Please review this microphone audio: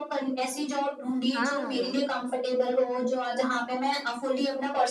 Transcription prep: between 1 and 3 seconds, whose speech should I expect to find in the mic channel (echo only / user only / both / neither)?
both